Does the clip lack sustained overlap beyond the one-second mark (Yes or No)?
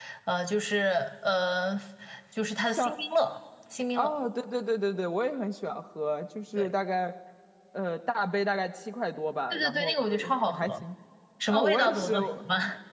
No